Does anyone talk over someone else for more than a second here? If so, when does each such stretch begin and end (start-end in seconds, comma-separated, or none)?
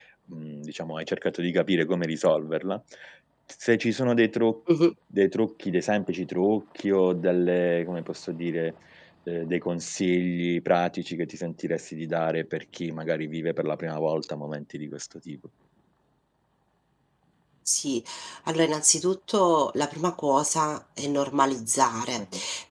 none